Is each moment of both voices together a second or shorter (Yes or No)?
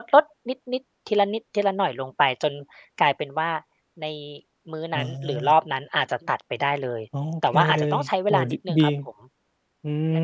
No